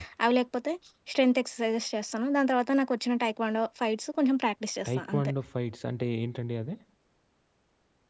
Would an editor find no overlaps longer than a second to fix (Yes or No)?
Yes